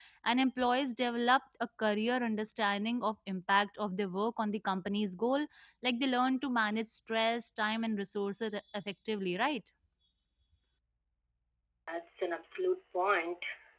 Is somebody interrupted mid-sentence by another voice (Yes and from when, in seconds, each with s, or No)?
No